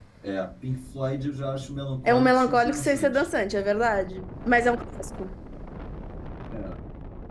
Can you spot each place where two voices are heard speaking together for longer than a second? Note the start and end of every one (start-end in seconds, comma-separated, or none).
2.0-3.2